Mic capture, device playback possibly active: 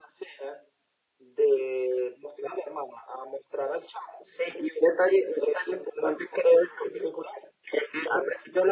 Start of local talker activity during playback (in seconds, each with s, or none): none